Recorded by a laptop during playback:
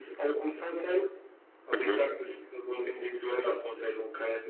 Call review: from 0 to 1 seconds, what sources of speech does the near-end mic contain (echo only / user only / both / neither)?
echo only